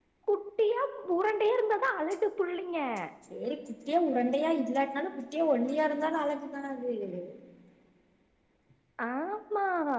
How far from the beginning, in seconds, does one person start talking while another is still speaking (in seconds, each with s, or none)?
none